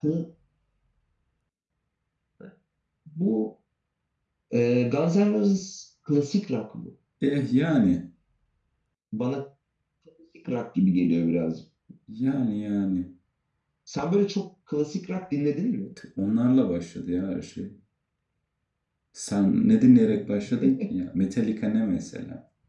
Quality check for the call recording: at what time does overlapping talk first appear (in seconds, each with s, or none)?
none